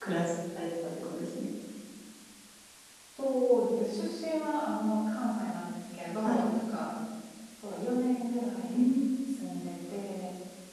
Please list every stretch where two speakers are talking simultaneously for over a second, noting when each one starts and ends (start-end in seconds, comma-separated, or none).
none